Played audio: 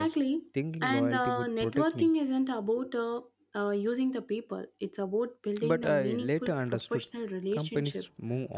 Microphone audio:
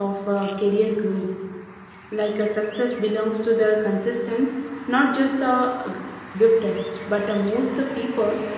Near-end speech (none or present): present